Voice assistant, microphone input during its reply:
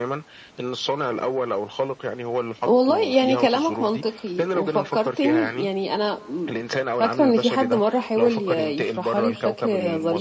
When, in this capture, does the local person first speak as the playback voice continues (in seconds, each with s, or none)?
2.7 s